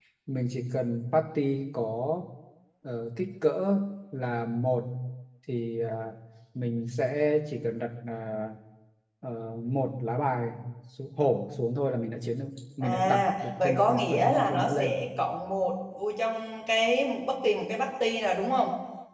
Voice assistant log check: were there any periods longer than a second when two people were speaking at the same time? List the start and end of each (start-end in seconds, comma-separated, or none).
12.8-15.0